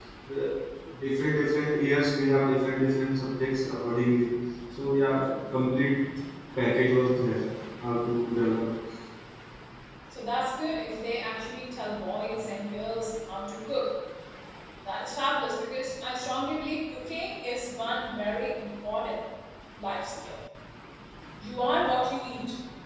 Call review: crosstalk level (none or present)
none